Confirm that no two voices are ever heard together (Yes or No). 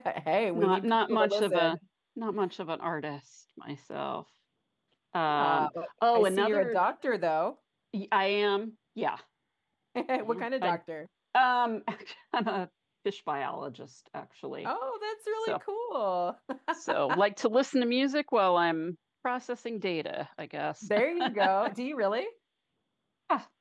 No